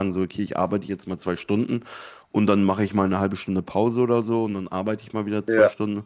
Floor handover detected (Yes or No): No